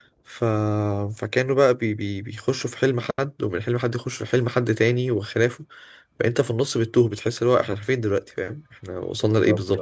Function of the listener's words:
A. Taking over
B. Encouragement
A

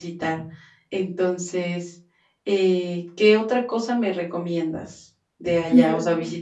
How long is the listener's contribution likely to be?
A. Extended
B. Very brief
B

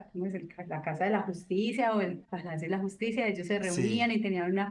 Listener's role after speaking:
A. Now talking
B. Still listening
B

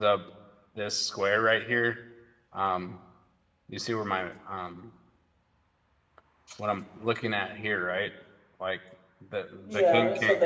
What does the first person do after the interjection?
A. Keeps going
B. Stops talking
B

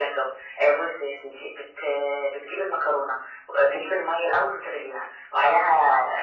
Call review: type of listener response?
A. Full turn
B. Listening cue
B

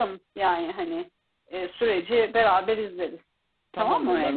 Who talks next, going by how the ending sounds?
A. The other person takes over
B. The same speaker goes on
A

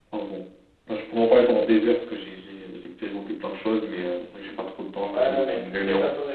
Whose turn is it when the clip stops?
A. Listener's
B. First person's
A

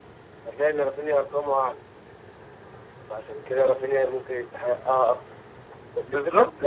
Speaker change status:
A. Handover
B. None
B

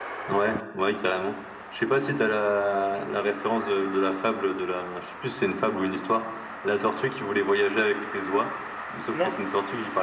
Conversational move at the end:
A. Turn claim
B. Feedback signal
B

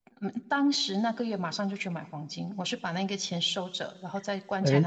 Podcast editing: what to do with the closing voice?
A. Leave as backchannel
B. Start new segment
B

